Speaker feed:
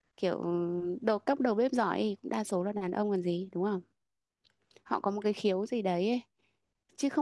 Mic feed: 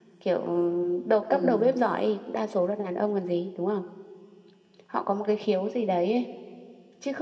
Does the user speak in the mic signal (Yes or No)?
Yes